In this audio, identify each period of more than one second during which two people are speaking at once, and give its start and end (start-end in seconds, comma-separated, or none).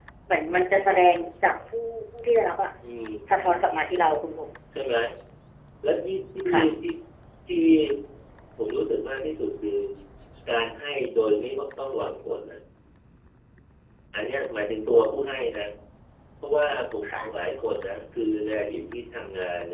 none